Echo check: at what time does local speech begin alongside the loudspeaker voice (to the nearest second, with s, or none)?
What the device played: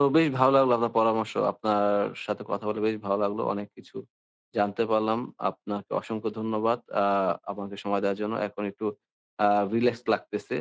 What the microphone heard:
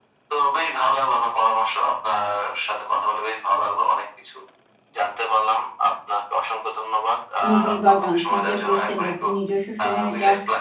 7 s